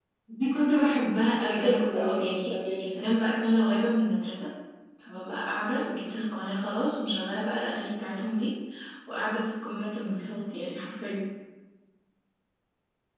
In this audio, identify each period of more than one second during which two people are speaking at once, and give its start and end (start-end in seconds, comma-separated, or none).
1.4-2.9